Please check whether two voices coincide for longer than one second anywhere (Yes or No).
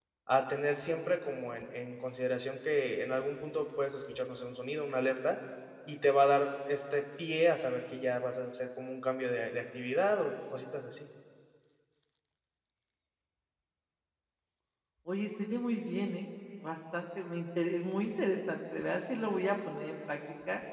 No